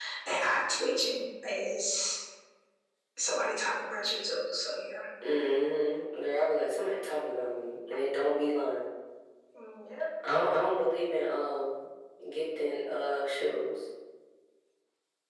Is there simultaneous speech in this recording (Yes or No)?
No